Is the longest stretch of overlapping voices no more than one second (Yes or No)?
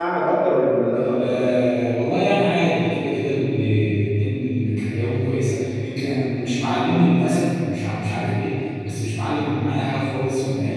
Yes